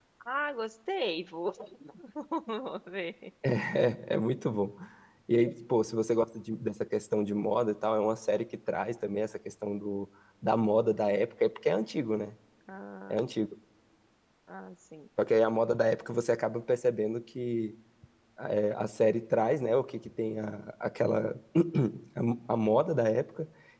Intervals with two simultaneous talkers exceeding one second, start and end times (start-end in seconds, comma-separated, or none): none